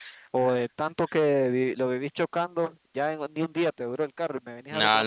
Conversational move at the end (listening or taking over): taking over